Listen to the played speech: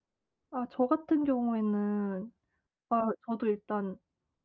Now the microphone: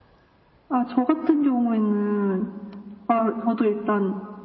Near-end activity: none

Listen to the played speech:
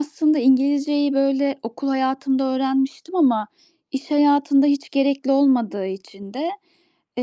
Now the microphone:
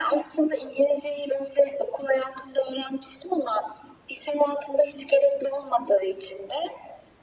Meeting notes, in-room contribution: none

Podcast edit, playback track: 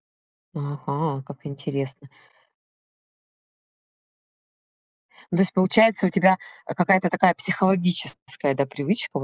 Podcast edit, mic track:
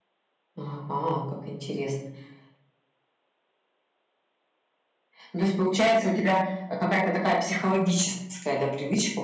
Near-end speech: none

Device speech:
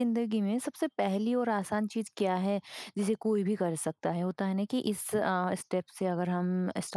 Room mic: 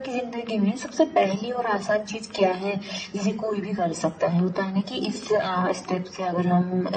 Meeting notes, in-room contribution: none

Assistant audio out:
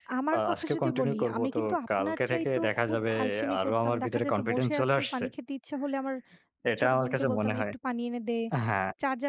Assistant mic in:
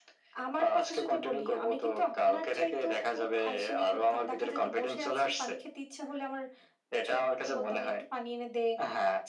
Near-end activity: none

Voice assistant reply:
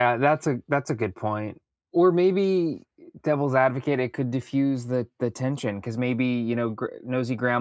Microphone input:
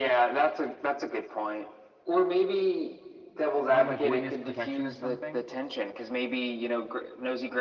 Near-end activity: present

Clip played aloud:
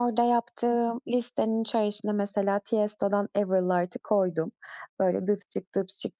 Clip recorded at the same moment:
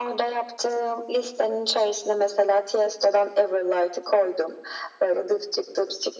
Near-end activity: none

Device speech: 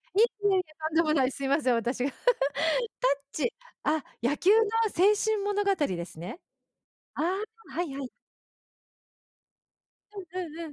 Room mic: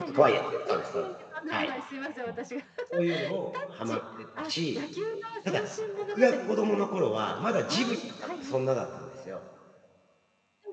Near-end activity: present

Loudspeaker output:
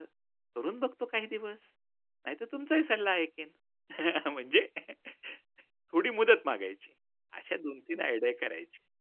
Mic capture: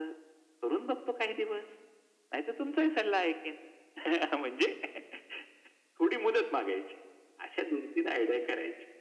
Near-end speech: none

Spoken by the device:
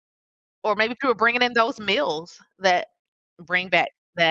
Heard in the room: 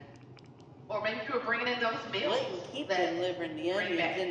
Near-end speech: present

